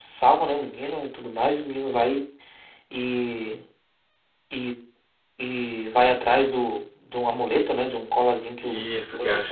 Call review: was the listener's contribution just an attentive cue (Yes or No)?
No